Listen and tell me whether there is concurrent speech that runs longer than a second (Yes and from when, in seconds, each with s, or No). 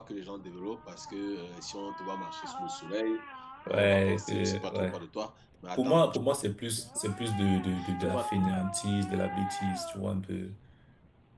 Yes, from 3.7 s